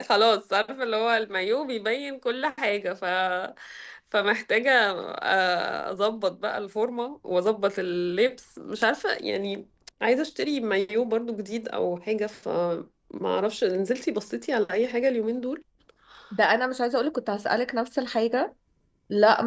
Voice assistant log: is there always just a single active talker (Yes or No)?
Yes